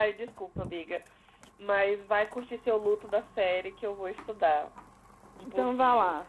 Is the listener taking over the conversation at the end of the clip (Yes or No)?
Yes